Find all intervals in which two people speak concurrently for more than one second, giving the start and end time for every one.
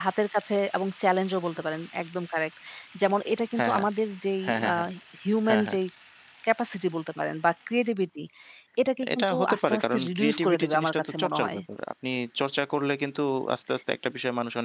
9.2-11.6

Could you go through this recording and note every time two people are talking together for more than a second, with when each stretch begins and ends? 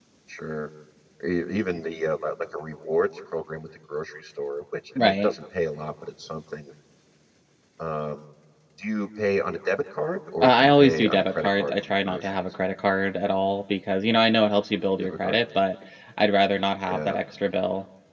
10.4-12.3

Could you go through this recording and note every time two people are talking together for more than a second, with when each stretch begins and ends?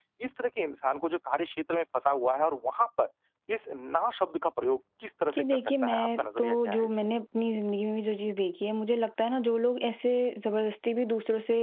5.3-7.0

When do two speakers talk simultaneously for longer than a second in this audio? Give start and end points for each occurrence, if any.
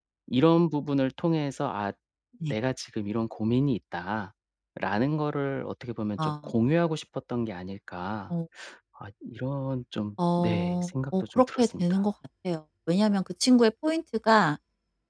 10.4-12.0

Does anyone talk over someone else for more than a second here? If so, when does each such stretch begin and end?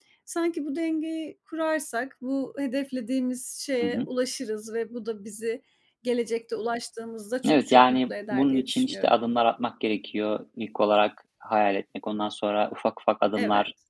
7.4-9.1

